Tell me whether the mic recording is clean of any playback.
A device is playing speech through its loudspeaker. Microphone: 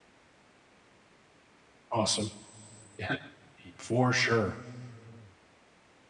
Yes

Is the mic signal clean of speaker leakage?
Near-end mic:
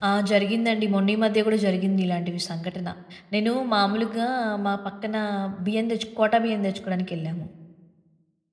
Yes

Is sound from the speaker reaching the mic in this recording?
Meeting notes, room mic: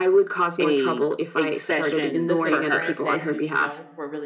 Yes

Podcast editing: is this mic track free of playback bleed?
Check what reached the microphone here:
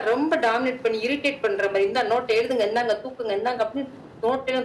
No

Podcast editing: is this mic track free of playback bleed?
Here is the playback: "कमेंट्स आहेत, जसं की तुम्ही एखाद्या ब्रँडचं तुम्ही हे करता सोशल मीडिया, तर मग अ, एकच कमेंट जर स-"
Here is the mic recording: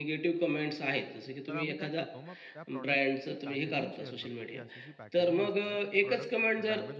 No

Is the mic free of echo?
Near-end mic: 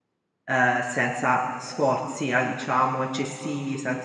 Yes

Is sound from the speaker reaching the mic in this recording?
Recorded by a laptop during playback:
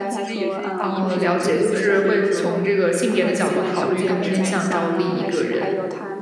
Yes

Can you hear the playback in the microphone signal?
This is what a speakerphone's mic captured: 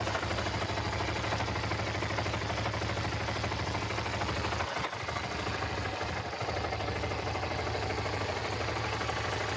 No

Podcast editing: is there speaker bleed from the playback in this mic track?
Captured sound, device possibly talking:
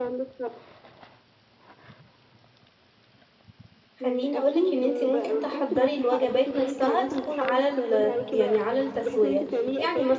Yes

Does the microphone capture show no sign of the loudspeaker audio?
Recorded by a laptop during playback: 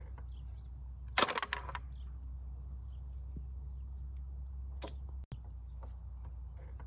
Yes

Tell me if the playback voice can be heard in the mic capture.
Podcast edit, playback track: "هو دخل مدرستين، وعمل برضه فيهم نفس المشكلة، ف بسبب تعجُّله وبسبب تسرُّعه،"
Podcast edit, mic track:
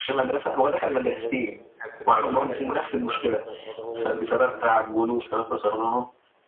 Yes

